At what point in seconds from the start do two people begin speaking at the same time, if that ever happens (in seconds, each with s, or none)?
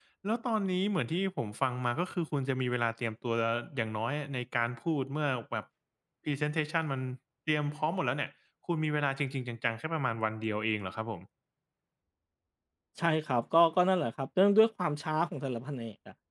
none